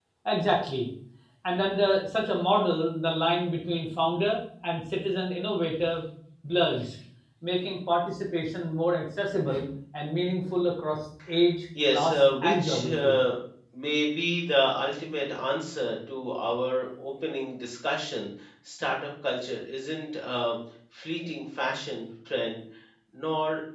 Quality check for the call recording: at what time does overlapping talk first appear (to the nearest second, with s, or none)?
12 s